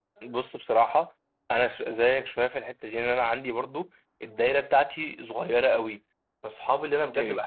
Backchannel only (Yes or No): Yes